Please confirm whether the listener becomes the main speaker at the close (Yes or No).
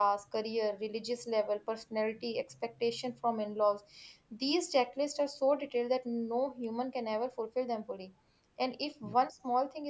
No